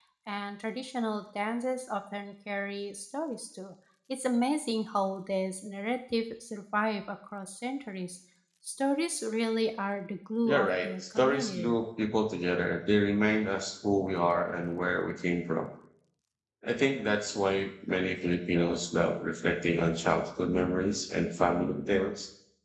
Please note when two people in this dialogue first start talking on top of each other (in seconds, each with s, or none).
10.4 s